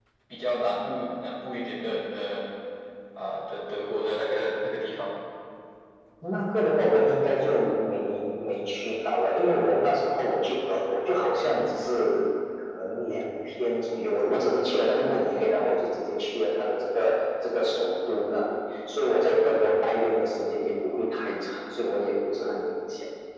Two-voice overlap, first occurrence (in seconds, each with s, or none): none